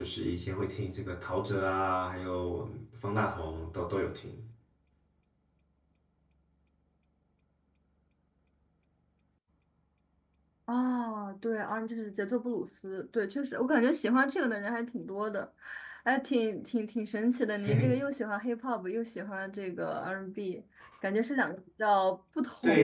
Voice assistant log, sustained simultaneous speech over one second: none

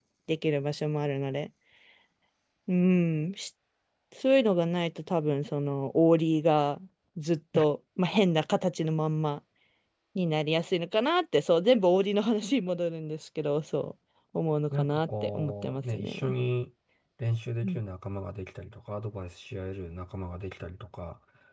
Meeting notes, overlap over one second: present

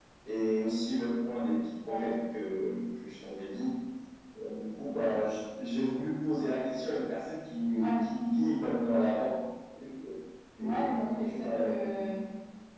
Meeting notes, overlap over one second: present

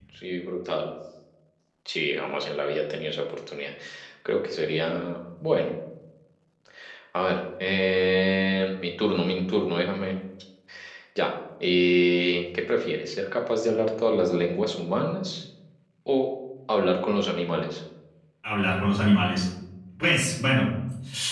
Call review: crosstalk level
none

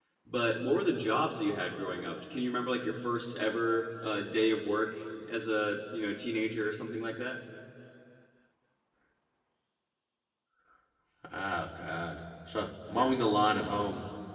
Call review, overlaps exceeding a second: none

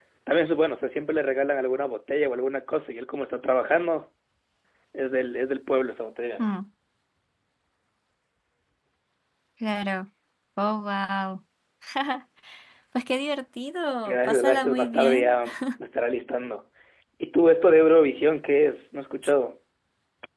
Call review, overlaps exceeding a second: present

